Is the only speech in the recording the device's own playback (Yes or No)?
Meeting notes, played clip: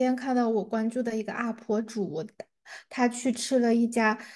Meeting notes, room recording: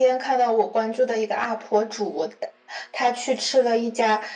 Yes